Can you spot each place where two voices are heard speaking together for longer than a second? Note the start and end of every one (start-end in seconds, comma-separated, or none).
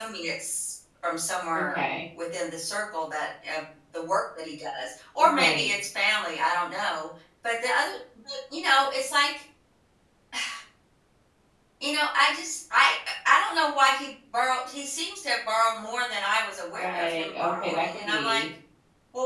16.8-18.4